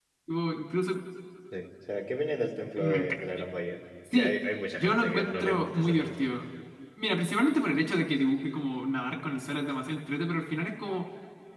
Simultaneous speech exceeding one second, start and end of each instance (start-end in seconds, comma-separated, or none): 4.8-6.3